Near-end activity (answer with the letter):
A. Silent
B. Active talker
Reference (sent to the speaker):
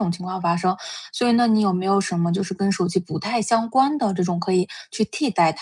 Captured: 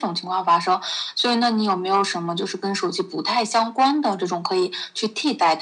A